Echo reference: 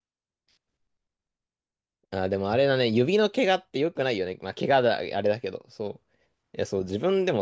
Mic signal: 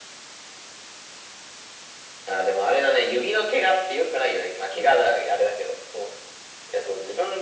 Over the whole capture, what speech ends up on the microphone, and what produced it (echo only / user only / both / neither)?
echo only